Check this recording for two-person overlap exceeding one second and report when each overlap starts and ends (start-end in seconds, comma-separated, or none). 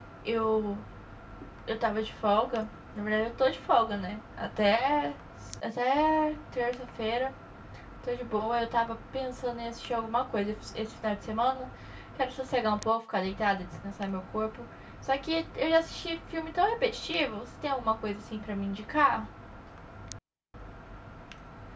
none